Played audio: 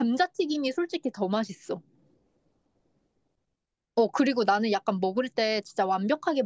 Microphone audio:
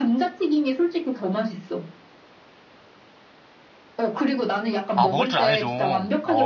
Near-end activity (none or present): present